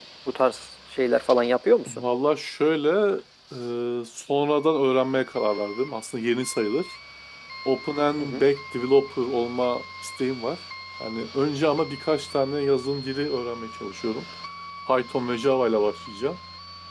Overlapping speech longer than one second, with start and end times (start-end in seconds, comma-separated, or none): none